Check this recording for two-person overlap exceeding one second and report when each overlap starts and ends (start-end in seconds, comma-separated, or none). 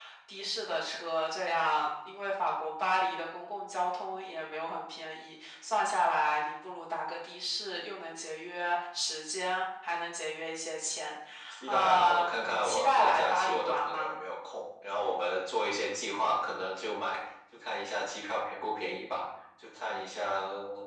11.7-14.2